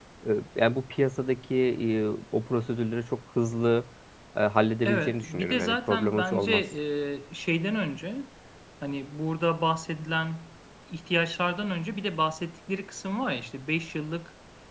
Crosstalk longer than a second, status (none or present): present